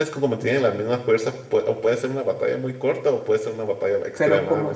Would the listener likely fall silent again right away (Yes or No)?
No